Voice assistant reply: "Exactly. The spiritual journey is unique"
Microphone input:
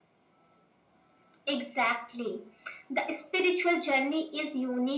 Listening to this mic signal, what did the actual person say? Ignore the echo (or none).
none